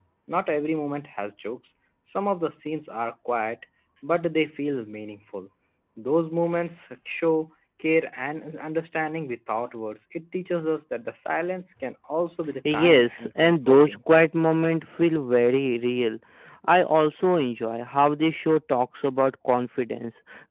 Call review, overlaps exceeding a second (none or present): present